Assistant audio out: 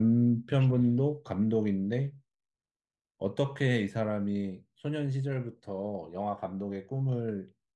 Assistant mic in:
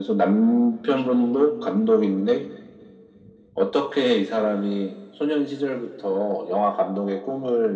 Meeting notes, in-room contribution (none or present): none